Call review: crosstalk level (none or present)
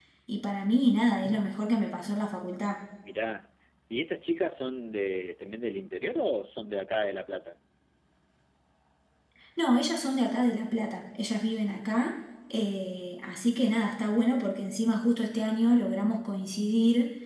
none